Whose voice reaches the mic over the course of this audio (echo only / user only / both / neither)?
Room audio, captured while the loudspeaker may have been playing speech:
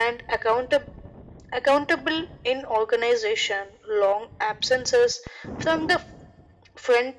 echo only